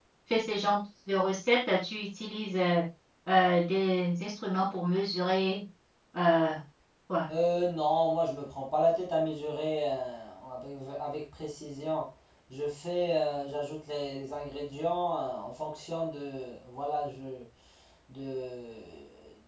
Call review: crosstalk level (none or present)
none